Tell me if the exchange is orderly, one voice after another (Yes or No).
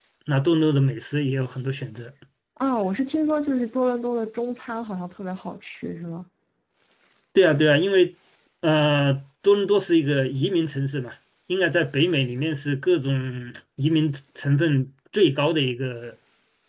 Yes